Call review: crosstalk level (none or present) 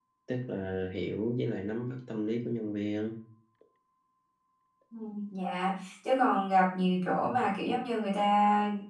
none